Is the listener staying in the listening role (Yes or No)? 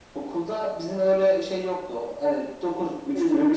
Yes